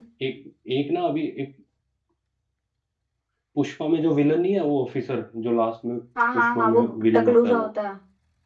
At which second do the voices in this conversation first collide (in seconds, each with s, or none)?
6.3 s